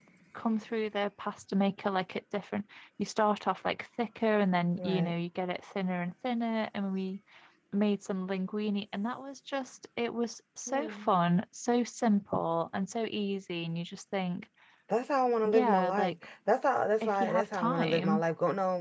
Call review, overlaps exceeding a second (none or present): present